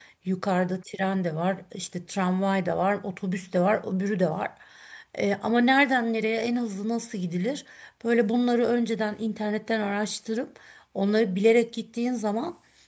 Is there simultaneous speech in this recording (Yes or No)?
No